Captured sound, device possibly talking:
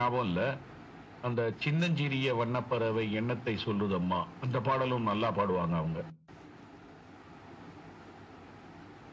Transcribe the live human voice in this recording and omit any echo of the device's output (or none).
none